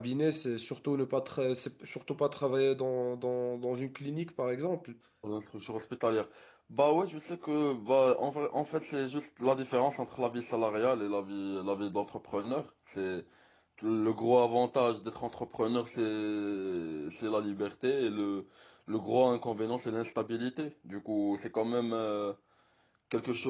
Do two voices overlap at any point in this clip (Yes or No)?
No